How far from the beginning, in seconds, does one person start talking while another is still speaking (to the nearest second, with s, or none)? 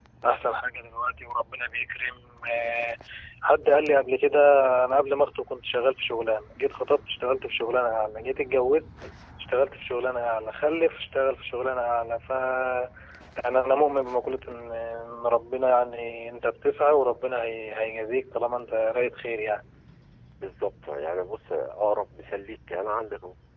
none